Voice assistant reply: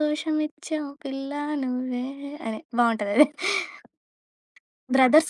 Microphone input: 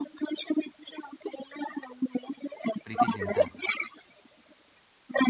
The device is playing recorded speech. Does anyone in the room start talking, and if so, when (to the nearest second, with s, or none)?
3 s